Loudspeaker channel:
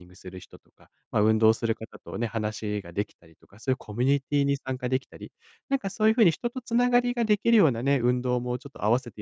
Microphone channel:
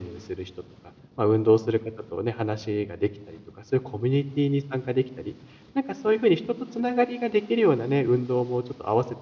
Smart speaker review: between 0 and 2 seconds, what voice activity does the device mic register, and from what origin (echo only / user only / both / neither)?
echo only